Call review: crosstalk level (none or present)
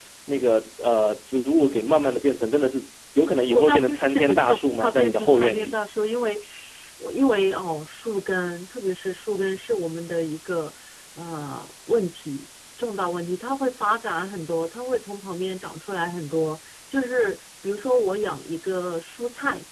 present